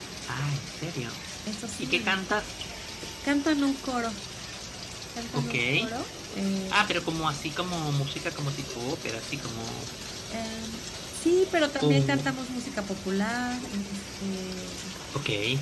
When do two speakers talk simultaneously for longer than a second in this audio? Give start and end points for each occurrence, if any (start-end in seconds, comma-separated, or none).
none